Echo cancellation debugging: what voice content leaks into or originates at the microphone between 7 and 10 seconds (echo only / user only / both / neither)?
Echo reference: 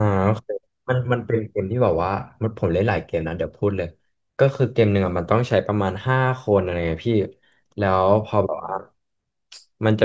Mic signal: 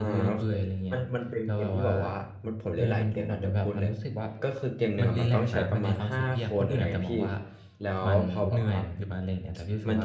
both